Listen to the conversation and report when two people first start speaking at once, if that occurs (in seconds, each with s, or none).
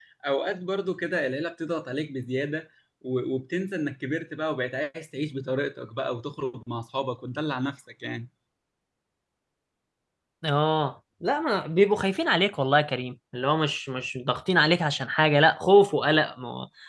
none